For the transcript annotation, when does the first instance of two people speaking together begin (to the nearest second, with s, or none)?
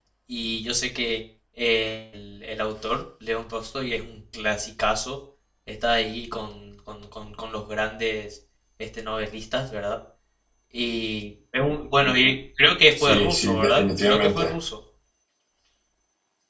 13 s